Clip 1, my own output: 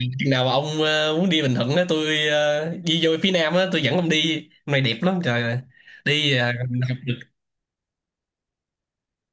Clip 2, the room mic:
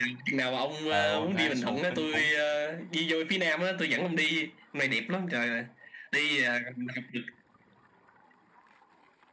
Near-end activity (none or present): present